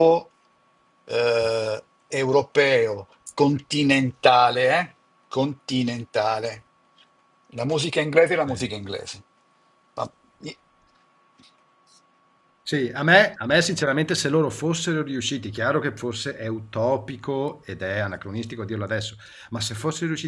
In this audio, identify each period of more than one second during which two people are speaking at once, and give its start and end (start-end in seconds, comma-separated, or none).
none